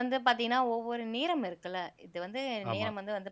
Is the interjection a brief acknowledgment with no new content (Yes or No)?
Yes